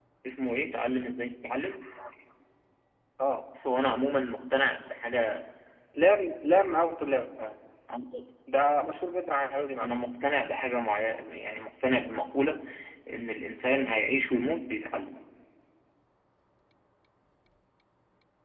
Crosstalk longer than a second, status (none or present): none